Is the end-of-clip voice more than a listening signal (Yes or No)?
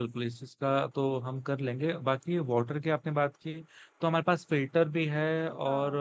No